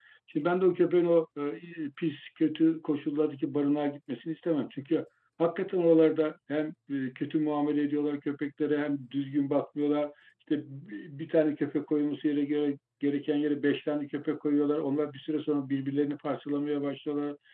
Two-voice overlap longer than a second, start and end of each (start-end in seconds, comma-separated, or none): none